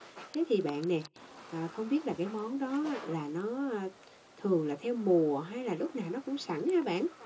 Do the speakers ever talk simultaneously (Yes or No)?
No